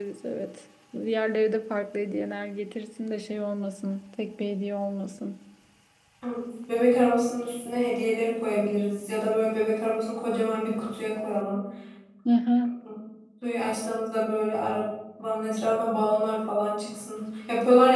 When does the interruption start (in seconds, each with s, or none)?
none